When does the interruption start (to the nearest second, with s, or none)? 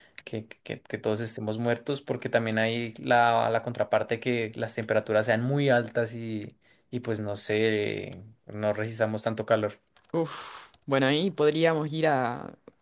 none